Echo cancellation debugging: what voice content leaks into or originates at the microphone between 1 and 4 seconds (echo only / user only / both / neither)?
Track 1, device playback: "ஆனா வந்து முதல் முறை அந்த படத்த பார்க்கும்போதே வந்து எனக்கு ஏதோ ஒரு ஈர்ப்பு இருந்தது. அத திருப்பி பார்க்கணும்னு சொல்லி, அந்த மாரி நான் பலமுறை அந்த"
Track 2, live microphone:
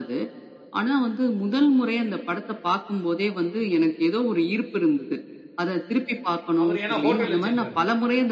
echo only